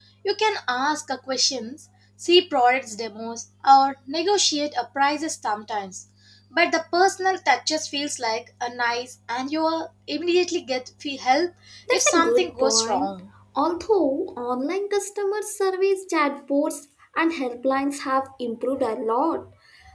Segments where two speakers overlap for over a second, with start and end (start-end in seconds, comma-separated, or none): 11.9-13.1